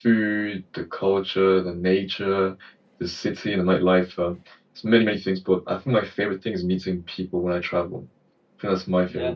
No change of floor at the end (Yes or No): Yes